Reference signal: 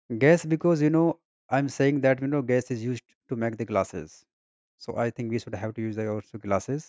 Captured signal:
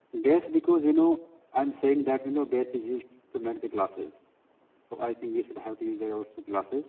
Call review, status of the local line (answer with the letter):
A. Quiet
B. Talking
A